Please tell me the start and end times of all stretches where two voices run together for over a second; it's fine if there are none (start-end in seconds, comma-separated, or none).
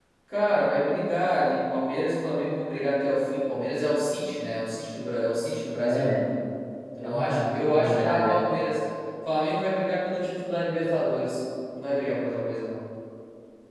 7.0-8.4